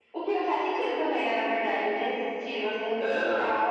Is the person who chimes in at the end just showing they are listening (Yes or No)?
Yes